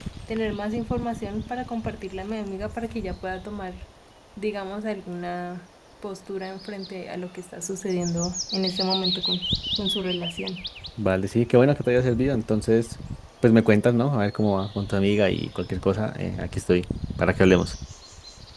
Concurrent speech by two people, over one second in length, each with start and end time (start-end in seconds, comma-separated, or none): none